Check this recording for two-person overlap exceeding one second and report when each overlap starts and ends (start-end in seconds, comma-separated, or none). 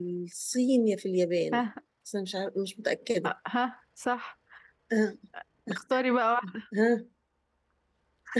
none